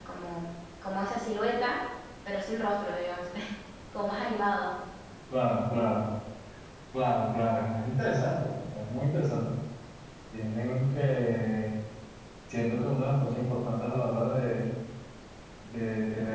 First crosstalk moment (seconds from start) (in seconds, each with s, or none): none